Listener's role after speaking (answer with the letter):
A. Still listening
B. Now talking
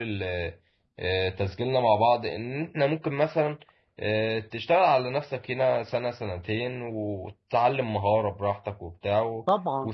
A